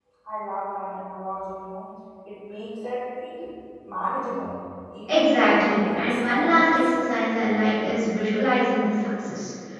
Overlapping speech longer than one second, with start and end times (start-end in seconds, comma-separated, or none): 5.1-6.7